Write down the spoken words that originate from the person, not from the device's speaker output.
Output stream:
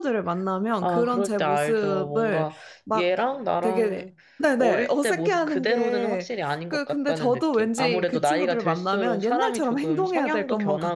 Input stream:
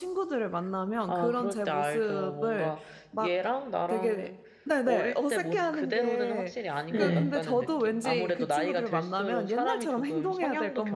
네.

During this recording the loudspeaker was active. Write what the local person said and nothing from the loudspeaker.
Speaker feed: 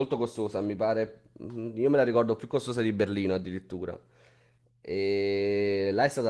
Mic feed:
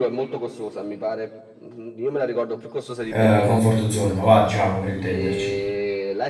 eh, comfort zone, va, diciamo, per intenderci.

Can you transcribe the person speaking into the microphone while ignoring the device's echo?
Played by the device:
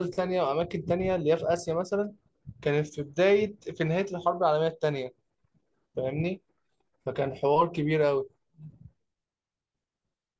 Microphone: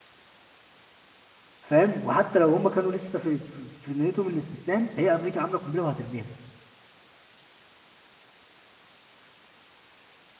فاهم وحتى لو هم كانوا لسه في في في نيتهم الاستسلام هي امريكا عامله قنبله وهترميها

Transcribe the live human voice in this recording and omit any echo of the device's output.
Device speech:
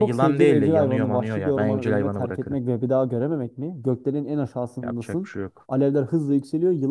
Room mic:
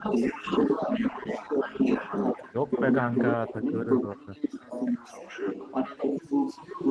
Yok be kanka takılırız orada.

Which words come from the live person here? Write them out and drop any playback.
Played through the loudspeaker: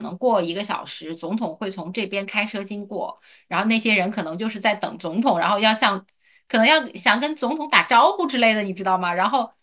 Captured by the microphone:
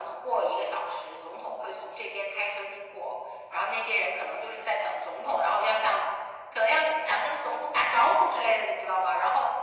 none

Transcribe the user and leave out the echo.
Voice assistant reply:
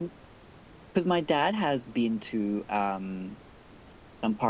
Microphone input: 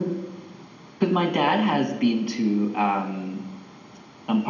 none

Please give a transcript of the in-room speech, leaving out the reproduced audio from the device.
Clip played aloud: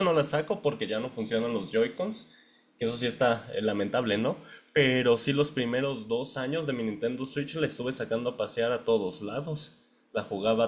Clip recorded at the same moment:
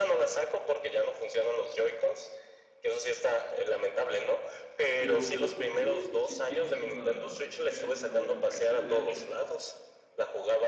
Pero, ¿por qué? Si tienes una, si tienes una buena PC, de hecho.

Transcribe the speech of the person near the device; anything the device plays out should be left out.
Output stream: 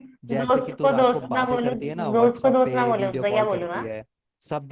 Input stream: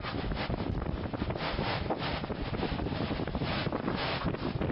none

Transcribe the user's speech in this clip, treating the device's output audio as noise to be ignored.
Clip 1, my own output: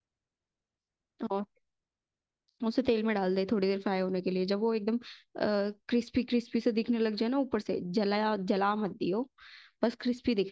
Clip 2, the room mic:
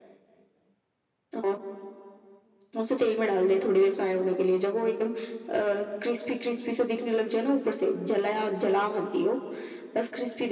none

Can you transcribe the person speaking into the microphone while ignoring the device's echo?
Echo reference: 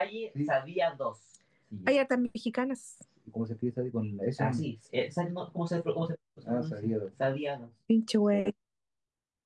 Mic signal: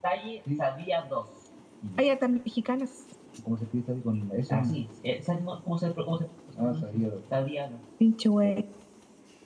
none

